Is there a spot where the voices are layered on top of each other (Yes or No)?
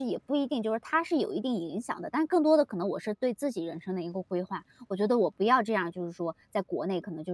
No